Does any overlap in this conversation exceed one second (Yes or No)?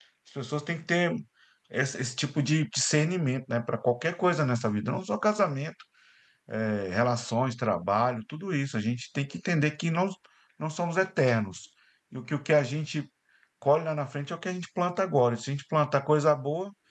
No